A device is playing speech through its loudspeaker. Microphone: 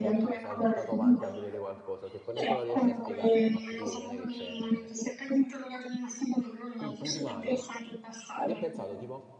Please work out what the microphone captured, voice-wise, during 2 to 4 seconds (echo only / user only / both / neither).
both